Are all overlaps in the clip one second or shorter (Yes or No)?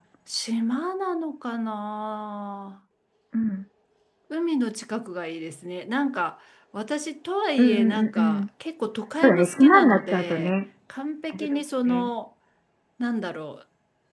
No